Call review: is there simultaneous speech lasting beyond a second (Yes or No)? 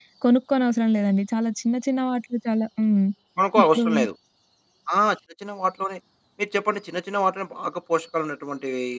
No